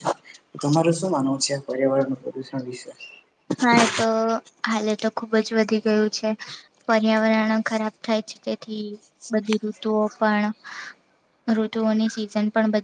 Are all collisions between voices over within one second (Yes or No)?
Yes